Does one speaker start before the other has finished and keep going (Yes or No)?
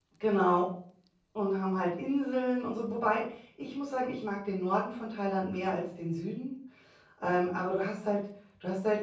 No